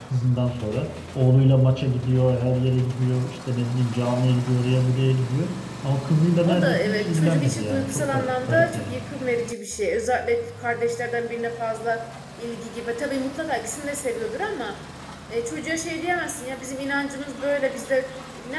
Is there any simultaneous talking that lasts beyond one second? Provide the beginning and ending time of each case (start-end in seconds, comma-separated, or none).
6.5-9.0